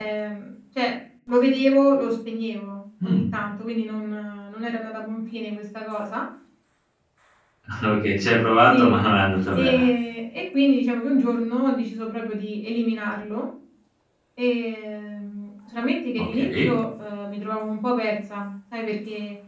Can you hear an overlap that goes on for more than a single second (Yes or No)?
No